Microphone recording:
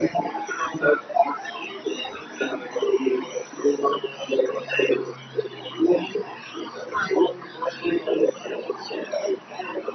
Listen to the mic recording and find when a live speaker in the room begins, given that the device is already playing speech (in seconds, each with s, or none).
none